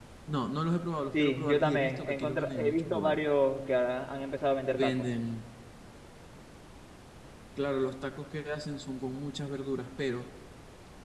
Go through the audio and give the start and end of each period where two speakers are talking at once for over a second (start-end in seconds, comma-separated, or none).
1.1-3.2